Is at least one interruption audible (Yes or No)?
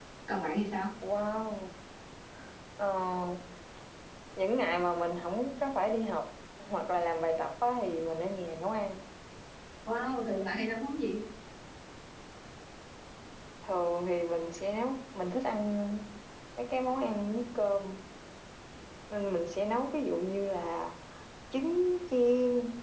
No